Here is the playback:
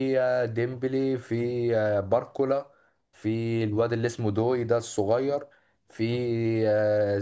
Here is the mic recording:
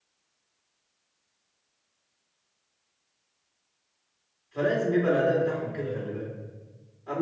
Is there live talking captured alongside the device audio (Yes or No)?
Yes